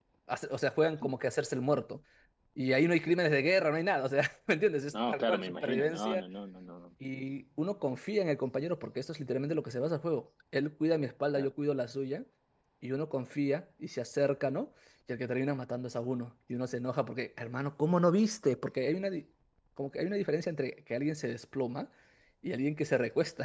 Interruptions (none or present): present